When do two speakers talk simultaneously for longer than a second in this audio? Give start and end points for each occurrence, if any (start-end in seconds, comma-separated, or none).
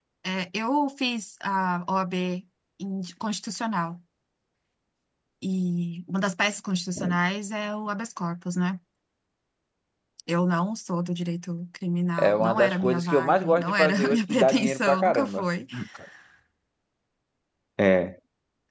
12.2-15.4